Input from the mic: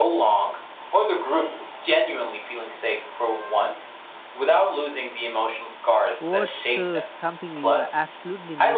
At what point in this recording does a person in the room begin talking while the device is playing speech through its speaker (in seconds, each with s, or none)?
6.2 s